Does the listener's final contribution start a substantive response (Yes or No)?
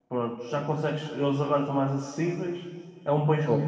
No